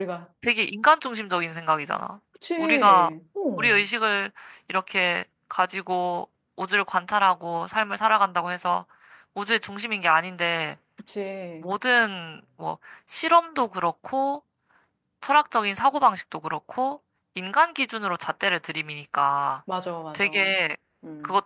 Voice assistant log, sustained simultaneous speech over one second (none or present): none